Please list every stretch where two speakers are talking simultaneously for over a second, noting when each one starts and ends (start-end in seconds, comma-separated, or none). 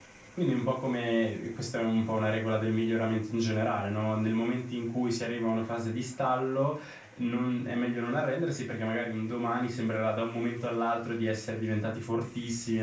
none